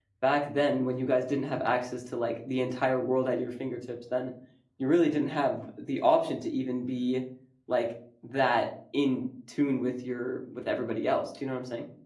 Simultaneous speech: No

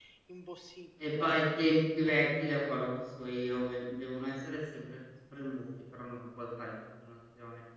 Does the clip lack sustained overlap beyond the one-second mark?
Yes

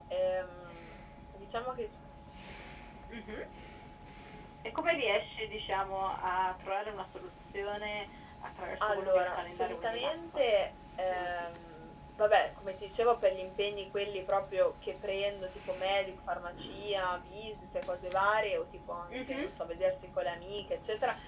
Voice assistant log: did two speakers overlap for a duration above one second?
Yes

